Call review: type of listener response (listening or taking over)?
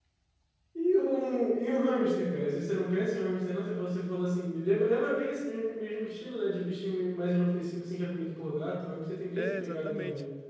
taking over